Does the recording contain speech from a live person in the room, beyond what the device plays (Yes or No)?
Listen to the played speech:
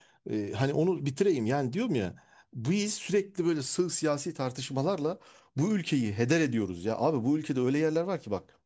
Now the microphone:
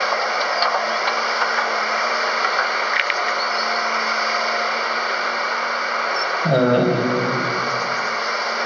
Yes